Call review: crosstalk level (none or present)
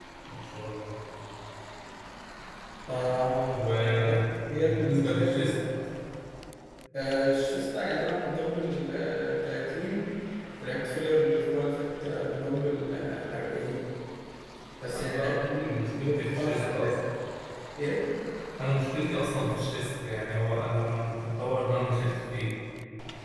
present